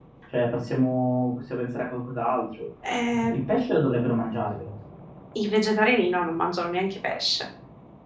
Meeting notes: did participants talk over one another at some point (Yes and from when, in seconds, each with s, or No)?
No